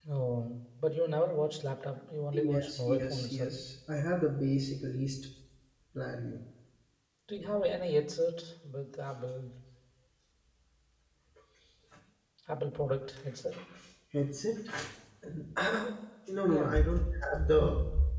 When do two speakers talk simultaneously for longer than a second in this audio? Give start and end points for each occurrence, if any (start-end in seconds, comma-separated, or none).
2.3-3.5